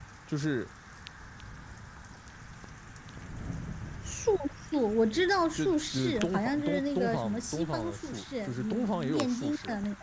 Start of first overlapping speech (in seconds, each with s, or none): 5.6 s